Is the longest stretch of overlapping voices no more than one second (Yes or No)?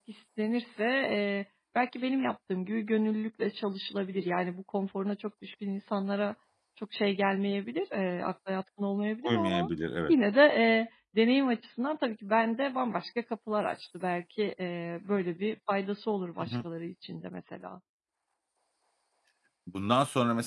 Yes